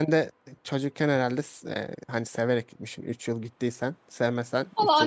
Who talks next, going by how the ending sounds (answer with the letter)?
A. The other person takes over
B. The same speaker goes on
A